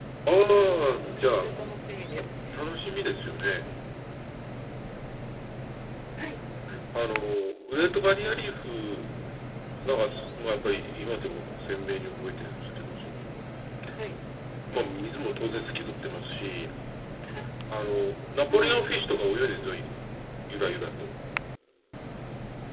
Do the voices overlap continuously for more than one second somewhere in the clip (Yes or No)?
No